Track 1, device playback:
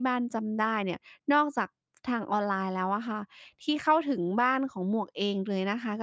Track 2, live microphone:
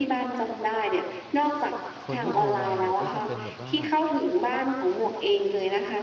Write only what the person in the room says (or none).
คนที่โทรมาเนี่ยก็จะเป็นแบบว่า